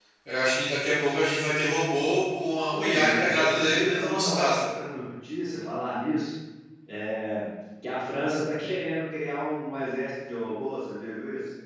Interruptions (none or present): present